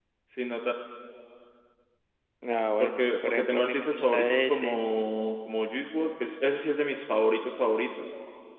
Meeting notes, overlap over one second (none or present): present